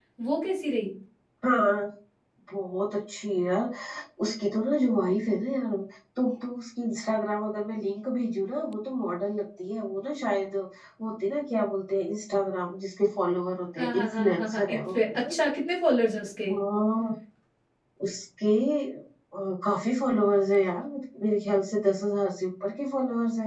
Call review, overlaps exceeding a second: present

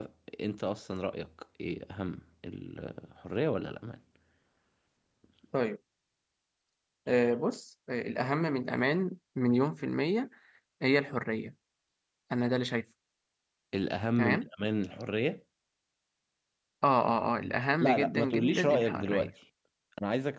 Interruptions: present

